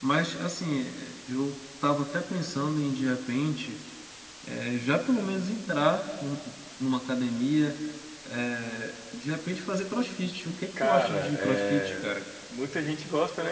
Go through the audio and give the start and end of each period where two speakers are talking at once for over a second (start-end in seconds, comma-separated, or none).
10.8-12.1